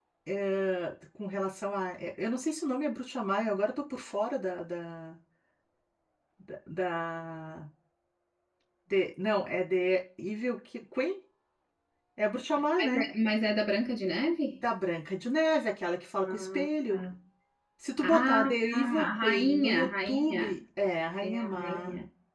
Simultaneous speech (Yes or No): Yes